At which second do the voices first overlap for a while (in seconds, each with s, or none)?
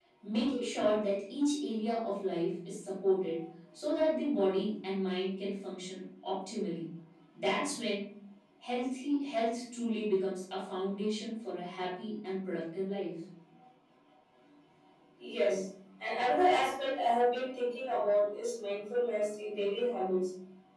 none